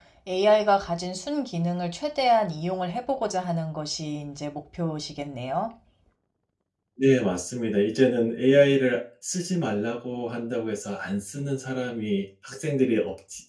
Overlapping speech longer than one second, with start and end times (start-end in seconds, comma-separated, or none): none